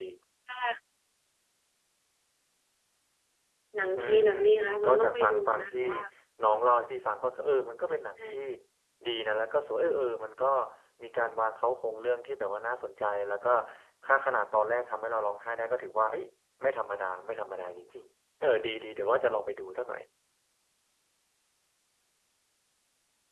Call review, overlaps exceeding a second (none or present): present